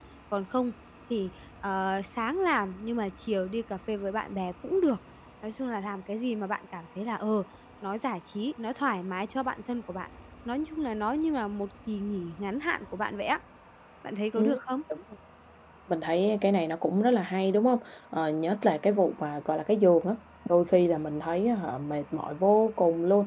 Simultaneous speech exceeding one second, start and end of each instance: none

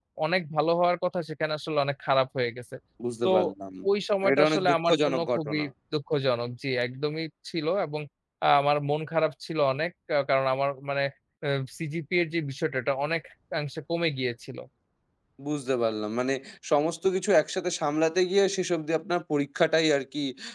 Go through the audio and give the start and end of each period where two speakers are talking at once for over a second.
4.3-5.6

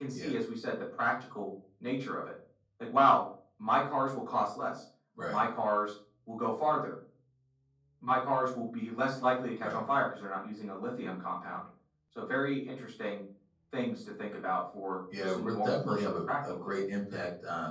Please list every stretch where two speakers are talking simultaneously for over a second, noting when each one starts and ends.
15.2-16.9

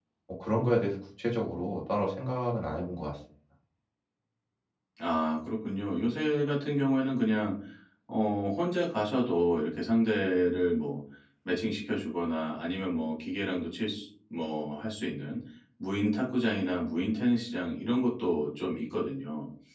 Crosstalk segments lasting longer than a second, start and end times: none

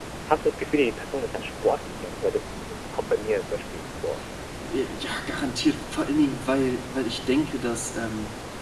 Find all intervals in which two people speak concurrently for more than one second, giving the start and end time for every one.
none

